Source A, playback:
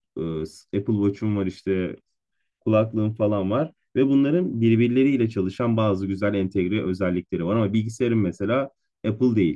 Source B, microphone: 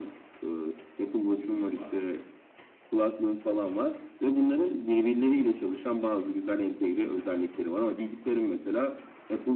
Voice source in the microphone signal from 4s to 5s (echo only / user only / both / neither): echo only